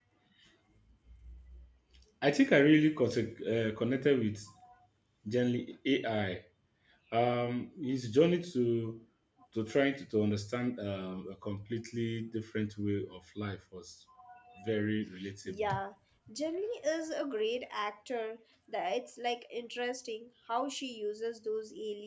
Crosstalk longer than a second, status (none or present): none